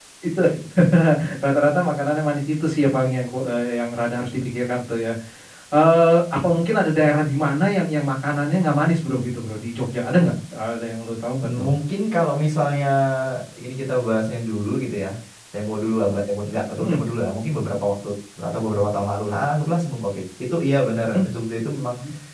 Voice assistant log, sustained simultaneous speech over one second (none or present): none